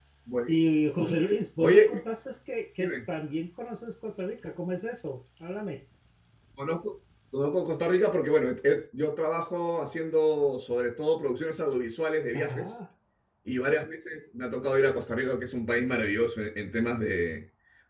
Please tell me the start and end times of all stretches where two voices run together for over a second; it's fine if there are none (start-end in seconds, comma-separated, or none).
none